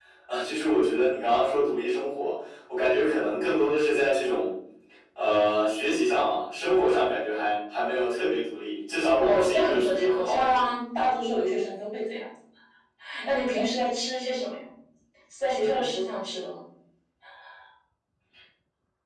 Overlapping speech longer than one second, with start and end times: 9.2-10.7

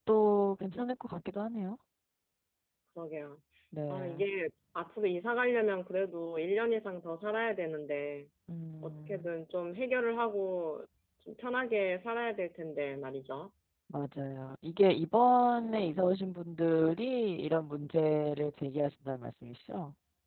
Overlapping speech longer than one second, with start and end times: none

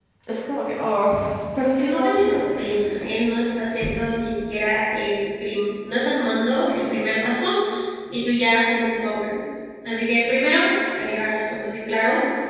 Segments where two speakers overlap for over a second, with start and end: 1.6-3.1

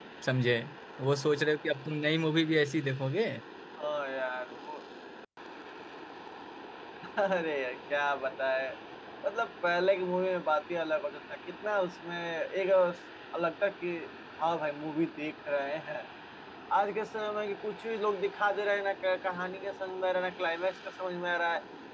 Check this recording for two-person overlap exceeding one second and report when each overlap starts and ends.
none

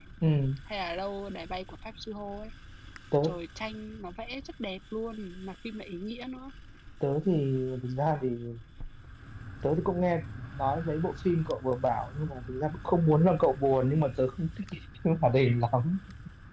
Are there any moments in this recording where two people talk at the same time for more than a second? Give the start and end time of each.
none

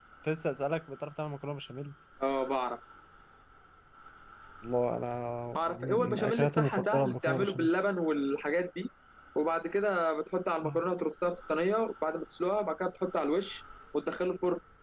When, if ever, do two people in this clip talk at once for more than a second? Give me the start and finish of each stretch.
5.6-7.7

